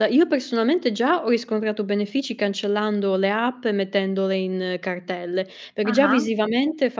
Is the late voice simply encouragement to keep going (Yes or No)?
Yes